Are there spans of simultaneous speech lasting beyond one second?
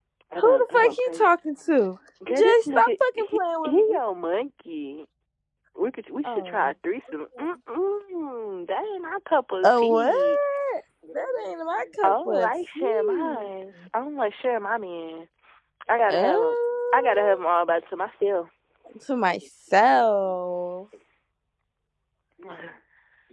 Yes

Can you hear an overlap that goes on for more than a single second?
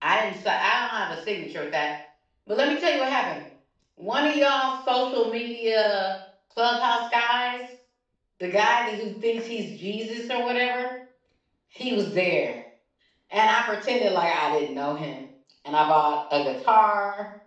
No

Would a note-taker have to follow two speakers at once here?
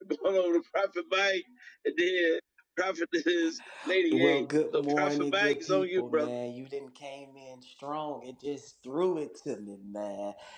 Yes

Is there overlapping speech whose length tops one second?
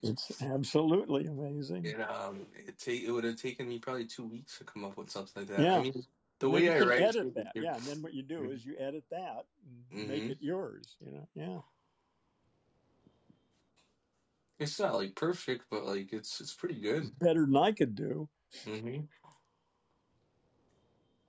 Yes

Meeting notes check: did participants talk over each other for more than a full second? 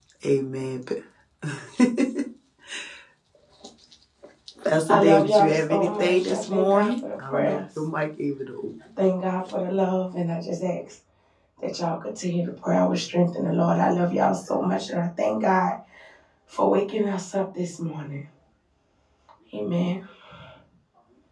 Yes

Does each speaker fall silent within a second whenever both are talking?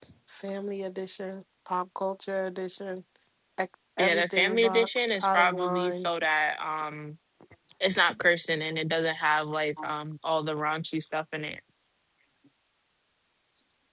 No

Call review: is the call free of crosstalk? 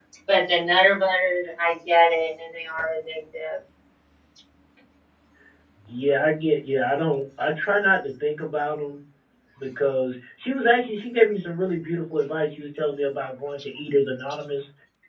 Yes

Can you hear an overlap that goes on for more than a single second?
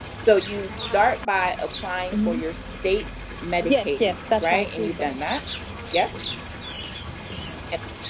Yes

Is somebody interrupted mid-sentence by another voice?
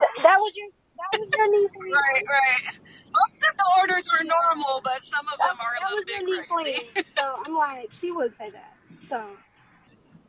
Yes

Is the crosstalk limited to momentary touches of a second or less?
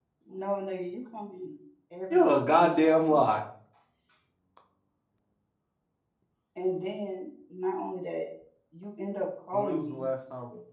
No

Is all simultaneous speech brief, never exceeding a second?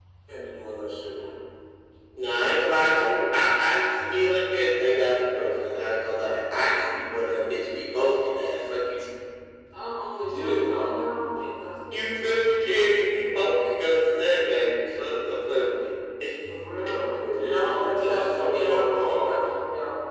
No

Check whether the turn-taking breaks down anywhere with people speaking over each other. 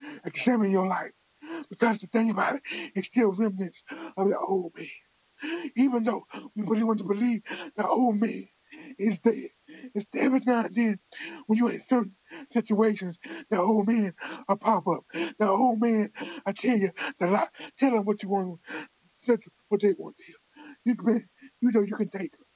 No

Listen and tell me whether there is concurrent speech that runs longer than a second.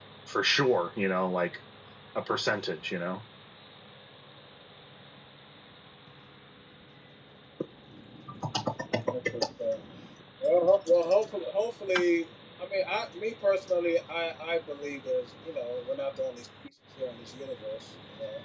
No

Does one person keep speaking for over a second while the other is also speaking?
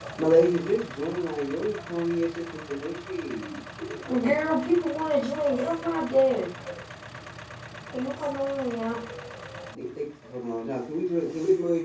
No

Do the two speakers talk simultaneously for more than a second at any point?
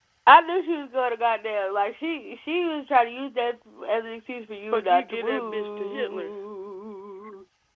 Yes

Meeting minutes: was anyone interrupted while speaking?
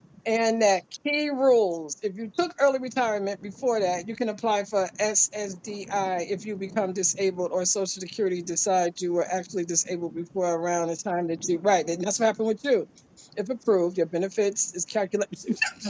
No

